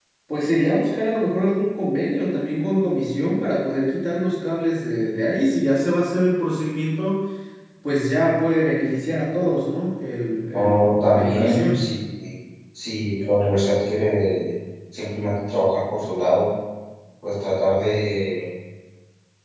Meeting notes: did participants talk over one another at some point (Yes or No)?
Yes